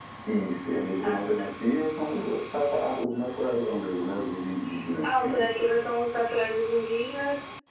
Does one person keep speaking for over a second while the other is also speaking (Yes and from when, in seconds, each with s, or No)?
No